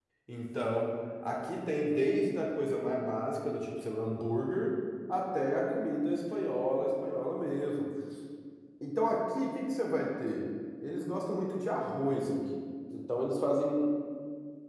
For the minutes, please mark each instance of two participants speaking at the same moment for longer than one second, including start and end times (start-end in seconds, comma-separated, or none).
none